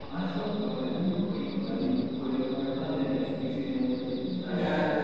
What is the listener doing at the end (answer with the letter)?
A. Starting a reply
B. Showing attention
A